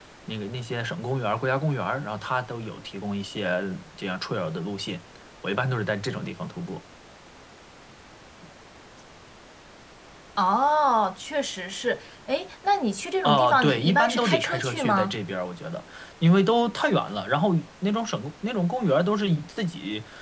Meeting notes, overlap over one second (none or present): present